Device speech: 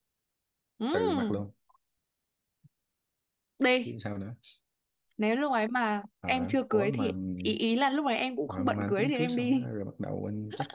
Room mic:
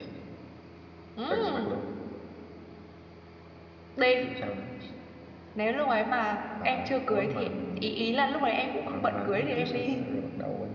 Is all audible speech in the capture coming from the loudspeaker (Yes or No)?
Yes